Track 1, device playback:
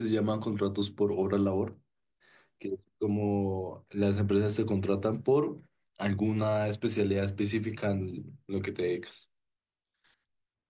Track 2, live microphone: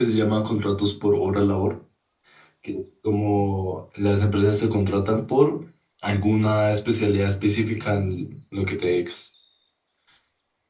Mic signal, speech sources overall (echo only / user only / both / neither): echo only